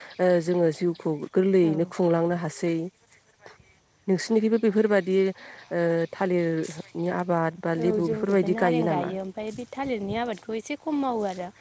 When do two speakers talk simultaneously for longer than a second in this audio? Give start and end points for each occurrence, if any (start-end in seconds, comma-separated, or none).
7.8-9.1